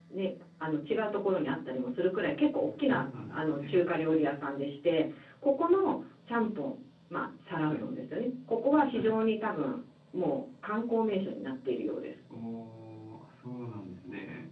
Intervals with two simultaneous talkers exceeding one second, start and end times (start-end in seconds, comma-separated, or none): 2.5-3.8